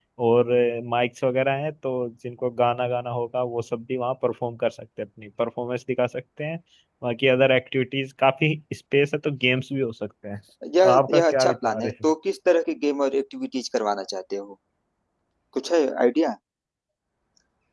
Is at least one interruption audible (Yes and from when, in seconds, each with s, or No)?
Yes, from 10.8 s